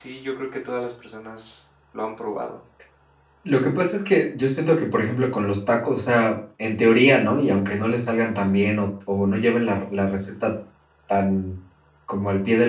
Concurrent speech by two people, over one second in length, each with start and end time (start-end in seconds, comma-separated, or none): none